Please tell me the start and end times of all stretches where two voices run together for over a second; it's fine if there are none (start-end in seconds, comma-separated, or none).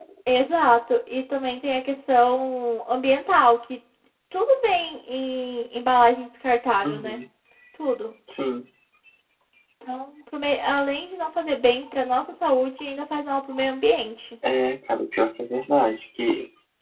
none